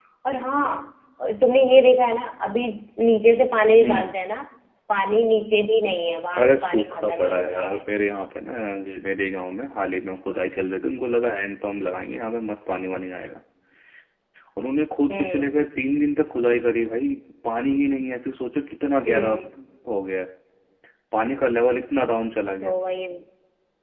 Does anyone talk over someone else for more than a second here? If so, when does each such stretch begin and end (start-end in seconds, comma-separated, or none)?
6.4-7.8